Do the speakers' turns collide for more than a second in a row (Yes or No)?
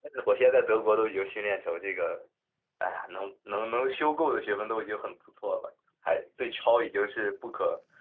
No